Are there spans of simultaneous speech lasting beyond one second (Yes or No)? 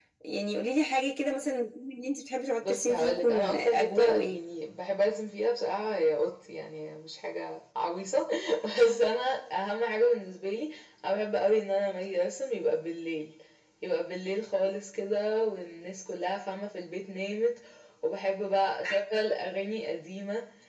Yes